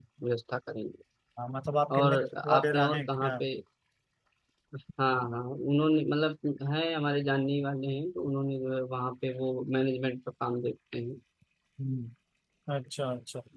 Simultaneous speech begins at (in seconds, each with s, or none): 2.0 s